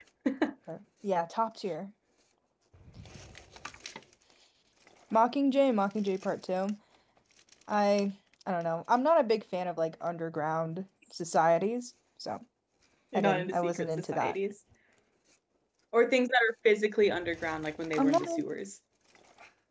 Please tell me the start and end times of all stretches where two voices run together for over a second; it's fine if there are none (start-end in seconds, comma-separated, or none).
13.1-14.3